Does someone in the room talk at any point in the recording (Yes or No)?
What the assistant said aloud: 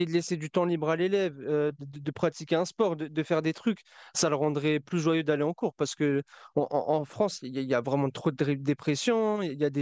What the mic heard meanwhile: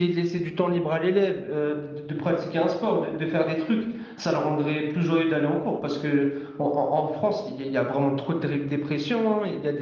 No